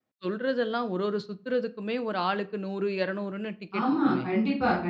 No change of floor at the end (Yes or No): No